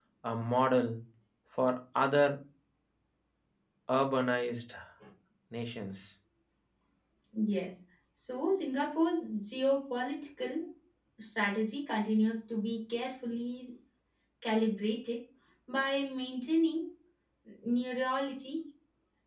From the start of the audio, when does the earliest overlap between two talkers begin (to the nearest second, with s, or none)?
none